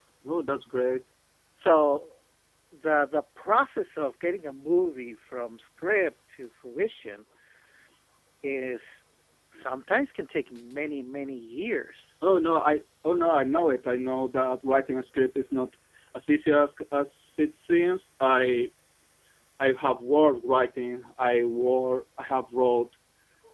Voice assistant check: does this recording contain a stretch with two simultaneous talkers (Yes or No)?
No